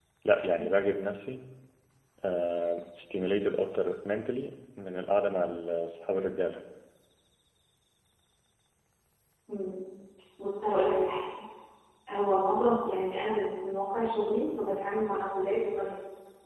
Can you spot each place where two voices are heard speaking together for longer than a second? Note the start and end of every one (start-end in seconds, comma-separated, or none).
none